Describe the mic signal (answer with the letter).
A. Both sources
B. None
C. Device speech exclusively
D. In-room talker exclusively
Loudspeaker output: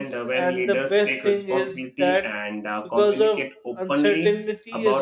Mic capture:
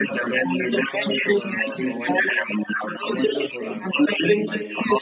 A